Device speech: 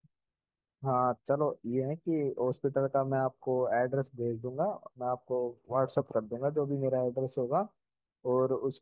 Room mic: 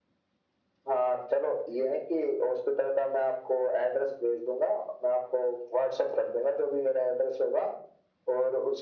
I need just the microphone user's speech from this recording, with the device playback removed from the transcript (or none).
none